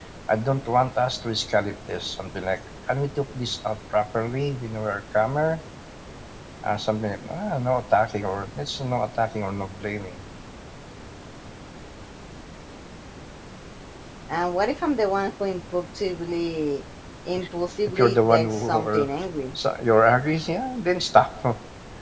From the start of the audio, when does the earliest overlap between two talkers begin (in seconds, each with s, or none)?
17.9 s